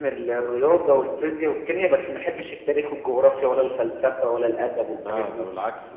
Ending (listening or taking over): taking over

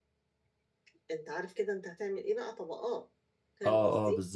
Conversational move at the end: taking over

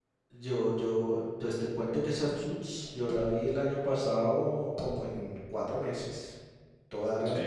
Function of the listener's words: listening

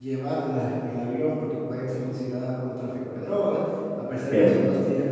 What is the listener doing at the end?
listening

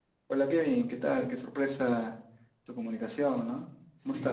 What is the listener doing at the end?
taking over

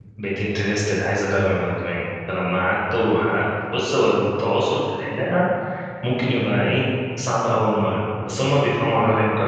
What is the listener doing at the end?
listening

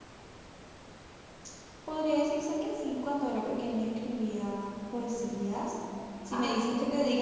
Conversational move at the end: listening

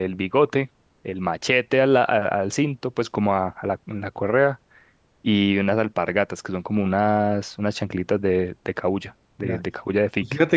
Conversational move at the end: taking over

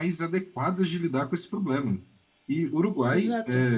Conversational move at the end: listening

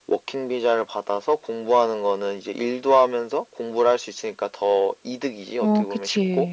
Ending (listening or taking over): taking over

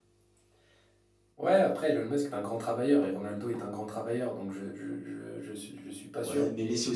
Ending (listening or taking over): taking over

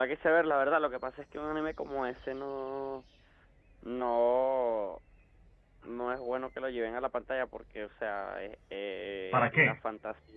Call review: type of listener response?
listening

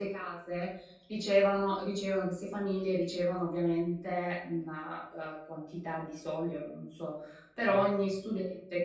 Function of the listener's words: listening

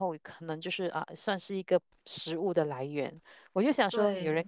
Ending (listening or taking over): listening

